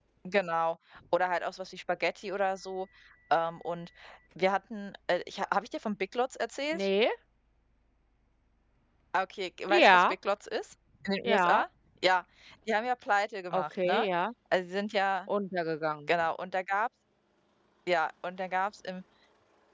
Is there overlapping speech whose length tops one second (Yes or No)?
No